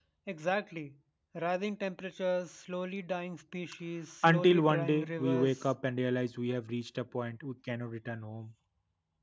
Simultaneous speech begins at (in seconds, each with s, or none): 4.2 s